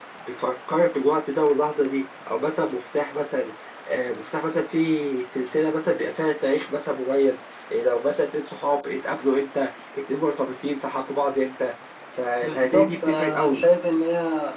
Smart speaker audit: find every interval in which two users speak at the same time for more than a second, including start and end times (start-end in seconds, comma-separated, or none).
12.4-13.6